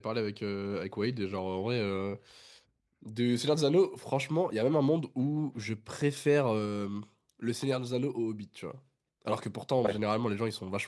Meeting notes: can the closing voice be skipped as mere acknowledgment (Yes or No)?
Yes